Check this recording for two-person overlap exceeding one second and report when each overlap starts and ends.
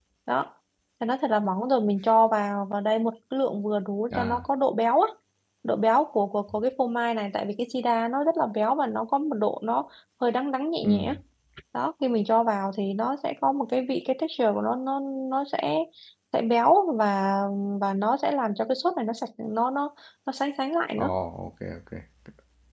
none

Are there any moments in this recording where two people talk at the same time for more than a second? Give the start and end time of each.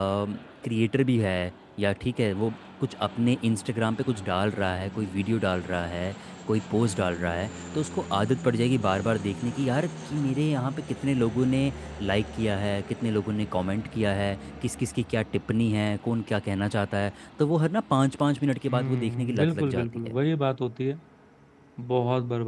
18.7-20.2

